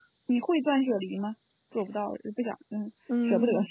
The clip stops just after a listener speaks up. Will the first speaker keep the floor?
No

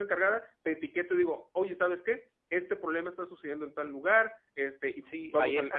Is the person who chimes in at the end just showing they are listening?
No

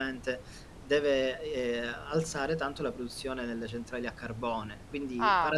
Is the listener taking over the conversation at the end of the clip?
No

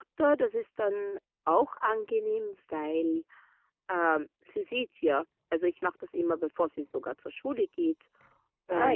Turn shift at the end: No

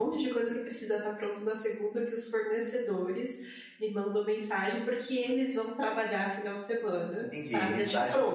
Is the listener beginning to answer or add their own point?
Yes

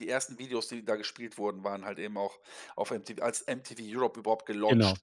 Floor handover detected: Yes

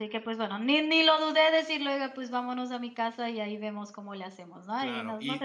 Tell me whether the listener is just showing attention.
No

